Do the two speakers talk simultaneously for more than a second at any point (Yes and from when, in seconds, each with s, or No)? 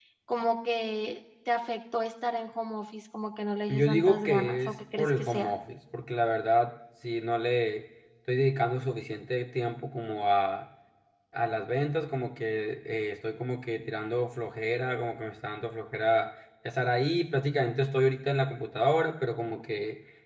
Yes, from 3.7 s